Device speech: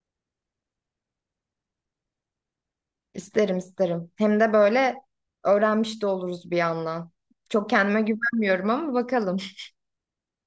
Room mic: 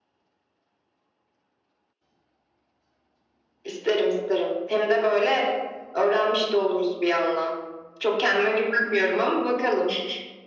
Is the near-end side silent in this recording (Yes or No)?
Yes